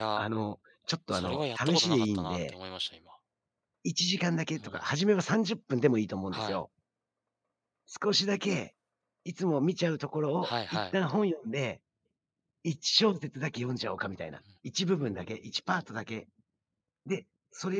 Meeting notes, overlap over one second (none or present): present